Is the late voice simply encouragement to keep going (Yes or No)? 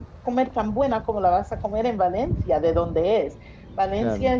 Yes